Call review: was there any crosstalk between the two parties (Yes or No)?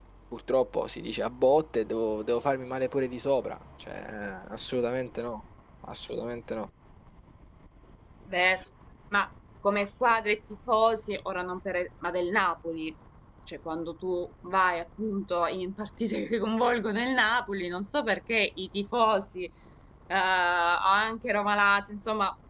No